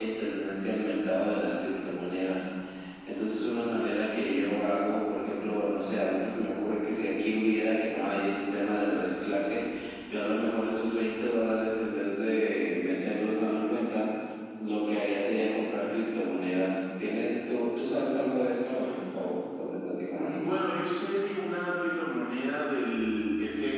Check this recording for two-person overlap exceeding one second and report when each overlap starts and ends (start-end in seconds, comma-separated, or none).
none